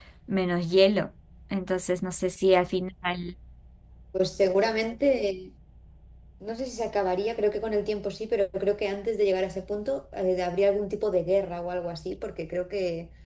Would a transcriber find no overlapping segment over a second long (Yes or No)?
Yes